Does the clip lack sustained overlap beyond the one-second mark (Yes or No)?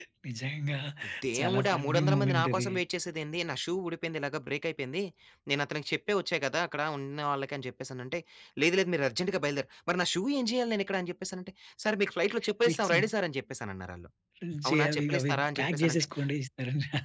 No